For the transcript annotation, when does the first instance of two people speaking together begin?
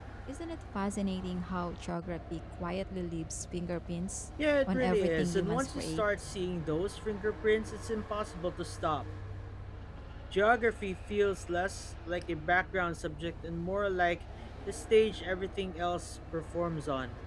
4.7 s

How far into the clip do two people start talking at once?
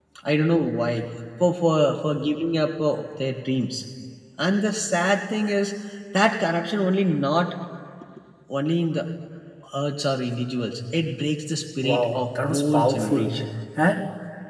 11.8 s

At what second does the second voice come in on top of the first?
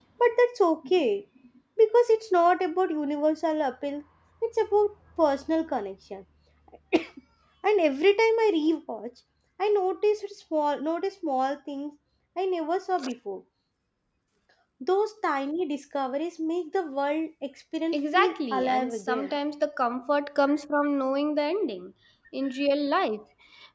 17.9 s

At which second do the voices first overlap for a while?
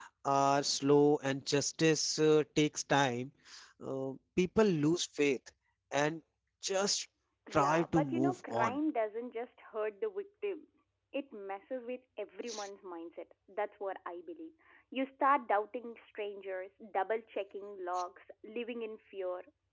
7.5 s

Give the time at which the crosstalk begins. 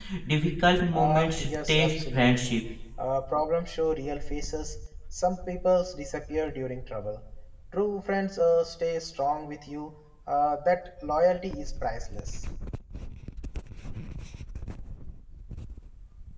0.9 s

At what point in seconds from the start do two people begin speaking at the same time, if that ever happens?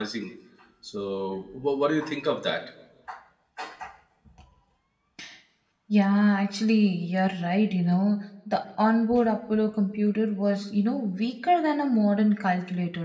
none

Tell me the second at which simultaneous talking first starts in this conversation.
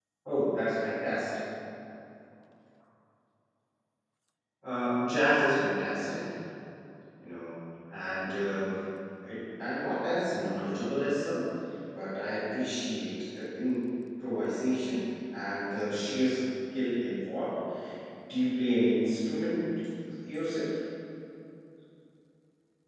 none

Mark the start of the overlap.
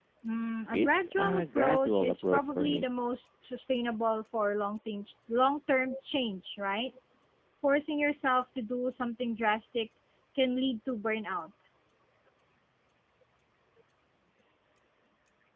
0.7 s

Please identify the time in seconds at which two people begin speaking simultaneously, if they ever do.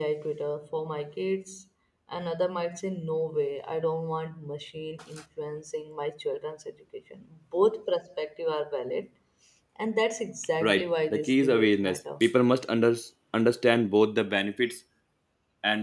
10.6 s

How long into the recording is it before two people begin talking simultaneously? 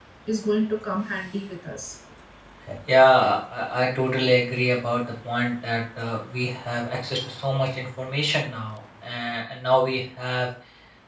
none

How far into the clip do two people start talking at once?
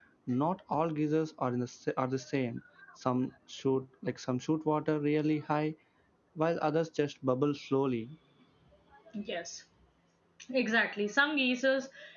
none

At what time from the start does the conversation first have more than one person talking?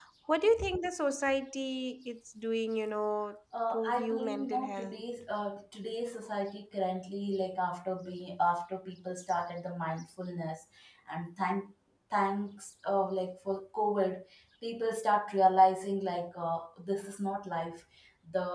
3.5 s

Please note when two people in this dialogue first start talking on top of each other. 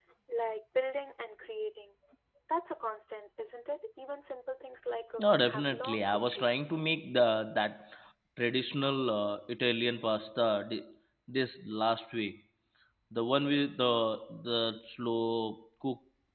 5.2 s

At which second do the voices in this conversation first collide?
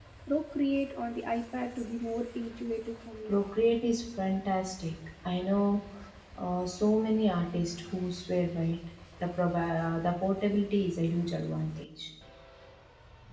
none

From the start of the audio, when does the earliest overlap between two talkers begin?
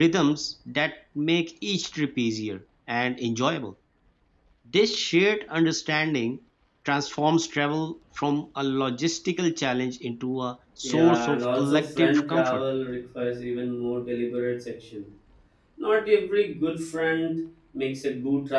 10.8 s

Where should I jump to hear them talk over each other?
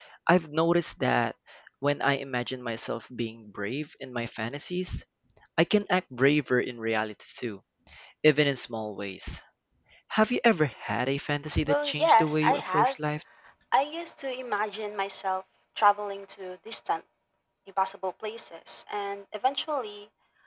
11.7 s

